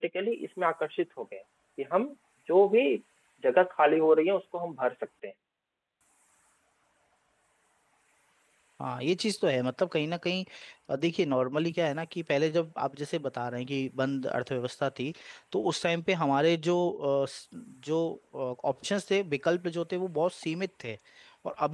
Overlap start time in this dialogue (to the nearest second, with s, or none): none